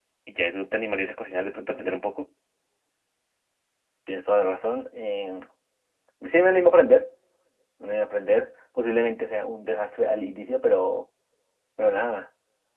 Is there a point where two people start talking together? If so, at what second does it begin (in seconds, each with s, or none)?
none